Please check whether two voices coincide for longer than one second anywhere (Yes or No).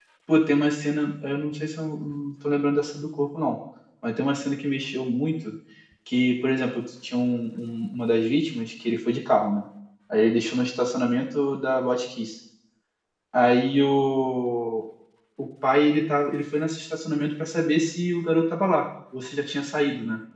No